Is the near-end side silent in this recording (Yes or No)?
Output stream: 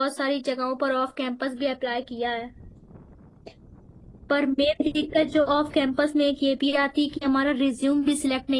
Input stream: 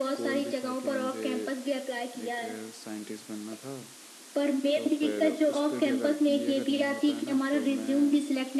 No